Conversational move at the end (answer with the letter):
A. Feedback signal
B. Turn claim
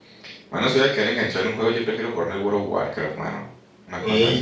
B